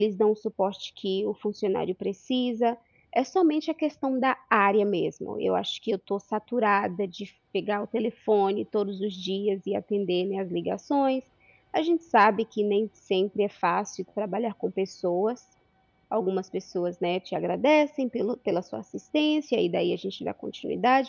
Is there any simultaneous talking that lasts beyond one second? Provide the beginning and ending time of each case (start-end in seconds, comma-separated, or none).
none